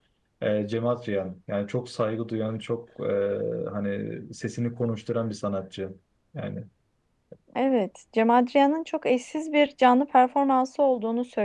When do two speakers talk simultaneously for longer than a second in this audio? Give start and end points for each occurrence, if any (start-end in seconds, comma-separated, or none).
none